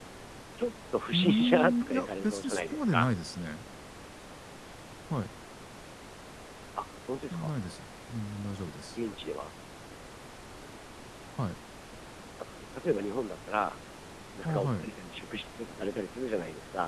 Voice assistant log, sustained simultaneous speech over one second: present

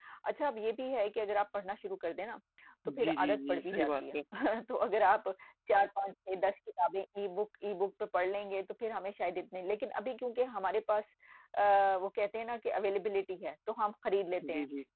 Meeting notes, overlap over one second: present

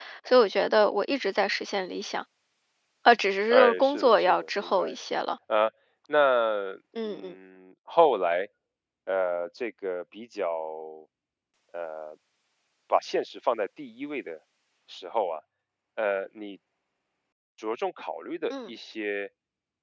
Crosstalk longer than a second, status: present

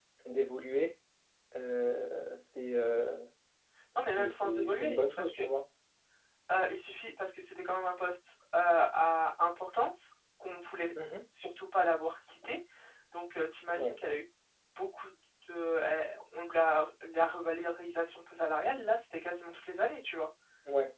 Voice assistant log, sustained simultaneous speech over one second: present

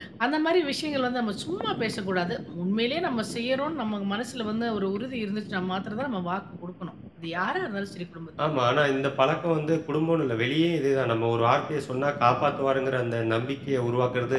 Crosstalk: none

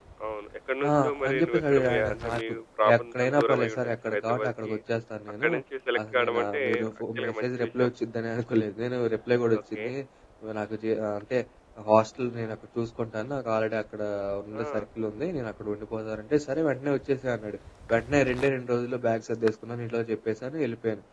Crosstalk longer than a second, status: present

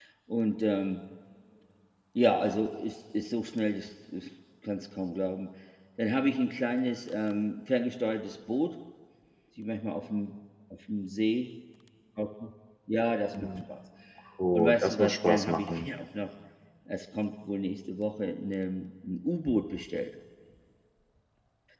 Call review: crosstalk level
present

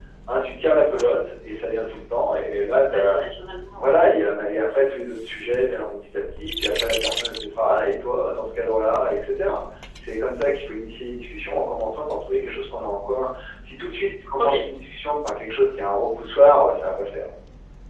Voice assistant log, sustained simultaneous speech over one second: none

